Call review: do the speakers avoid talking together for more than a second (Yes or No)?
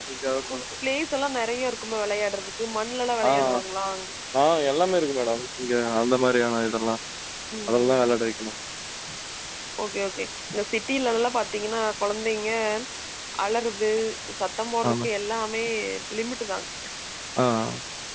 Yes